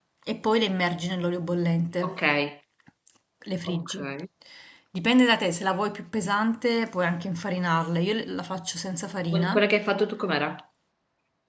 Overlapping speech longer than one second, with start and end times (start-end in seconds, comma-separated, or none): none